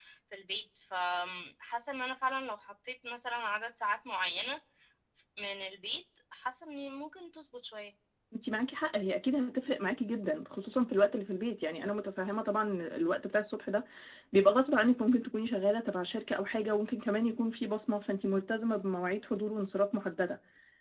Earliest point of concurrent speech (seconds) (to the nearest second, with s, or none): none